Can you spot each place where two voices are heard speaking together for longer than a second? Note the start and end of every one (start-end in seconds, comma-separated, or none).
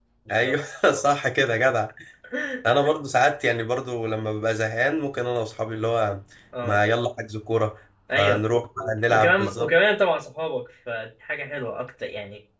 8.2-9.7